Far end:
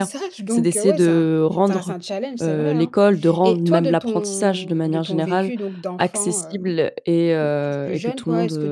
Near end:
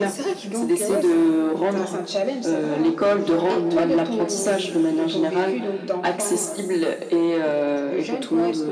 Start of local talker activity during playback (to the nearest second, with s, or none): none